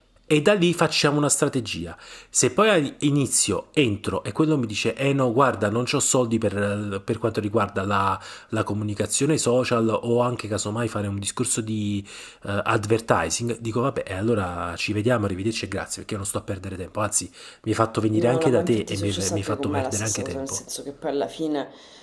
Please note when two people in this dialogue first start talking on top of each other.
18.1 s

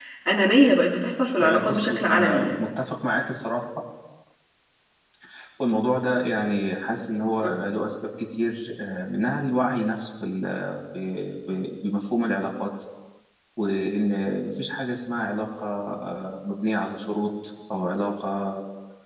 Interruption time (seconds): 1.4 s

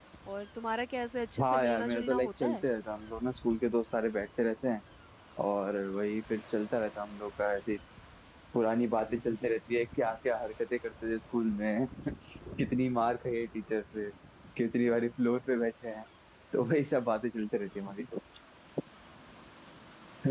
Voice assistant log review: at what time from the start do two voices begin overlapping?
1.4 s

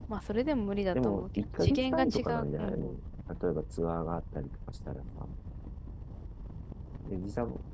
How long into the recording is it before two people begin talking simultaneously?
0.9 s

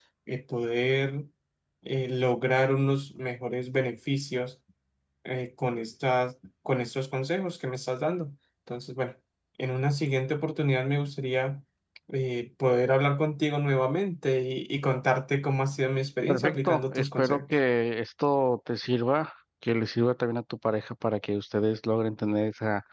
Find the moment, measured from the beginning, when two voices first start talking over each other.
16.3 s

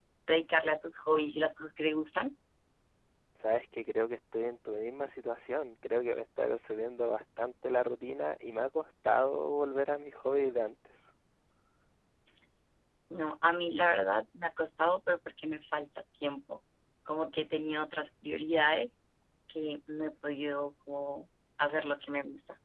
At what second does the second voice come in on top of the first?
none

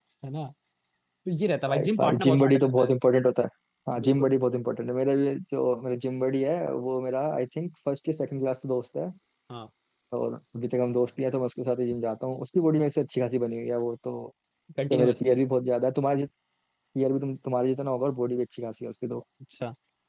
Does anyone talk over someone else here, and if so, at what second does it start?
1.7 s

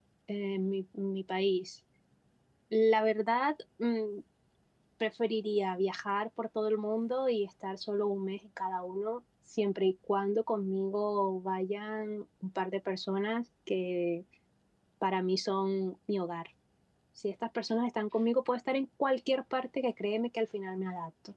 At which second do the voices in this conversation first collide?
none

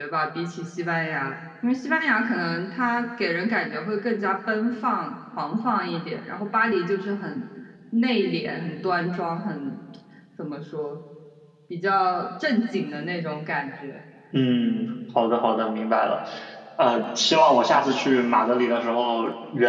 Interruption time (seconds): none

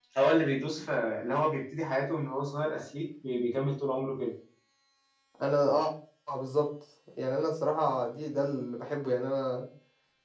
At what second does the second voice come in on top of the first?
none

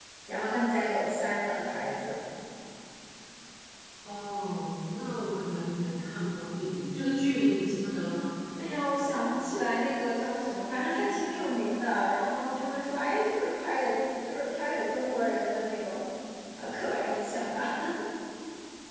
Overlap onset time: none

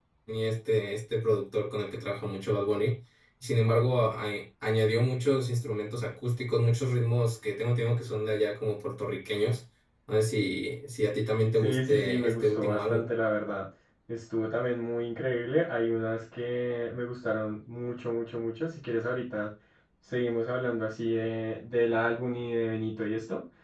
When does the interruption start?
11.6 s

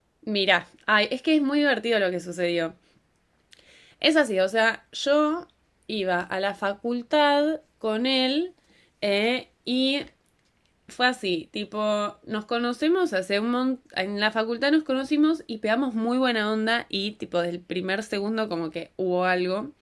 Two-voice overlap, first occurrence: none

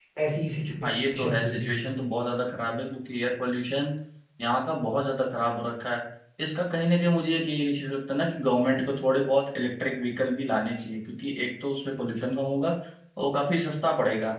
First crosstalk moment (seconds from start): 0.8 s

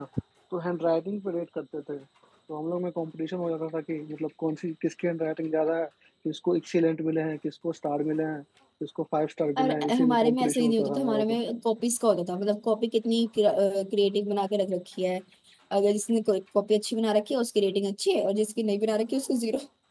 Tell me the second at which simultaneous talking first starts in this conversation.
9.6 s

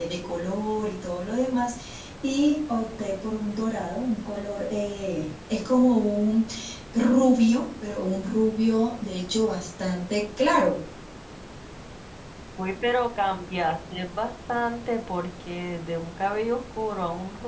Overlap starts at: none

